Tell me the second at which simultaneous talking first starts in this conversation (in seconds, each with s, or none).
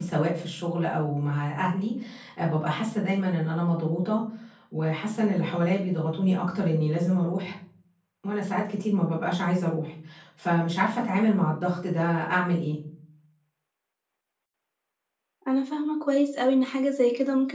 none